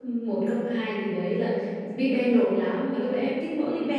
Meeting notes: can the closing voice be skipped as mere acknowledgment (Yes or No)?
Yes